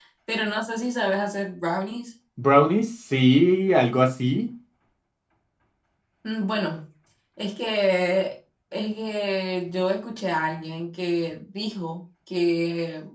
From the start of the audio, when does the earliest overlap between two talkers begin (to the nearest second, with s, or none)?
none